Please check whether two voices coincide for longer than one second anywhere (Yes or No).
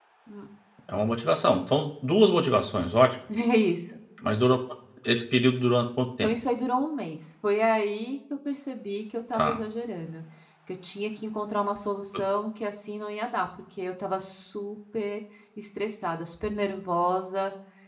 No